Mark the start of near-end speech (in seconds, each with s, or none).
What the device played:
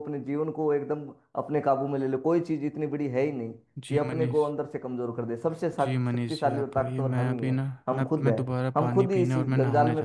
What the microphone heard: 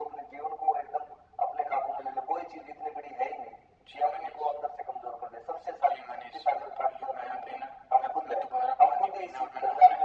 none